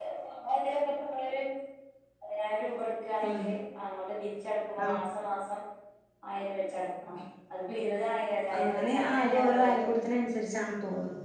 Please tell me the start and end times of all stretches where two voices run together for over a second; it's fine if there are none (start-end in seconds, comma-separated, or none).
8.6-9.9